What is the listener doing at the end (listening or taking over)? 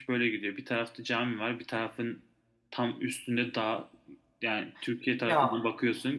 listening